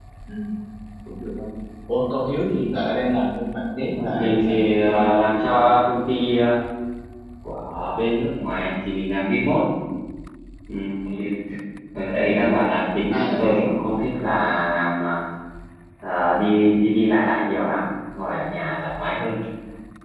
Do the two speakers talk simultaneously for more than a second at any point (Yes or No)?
Yes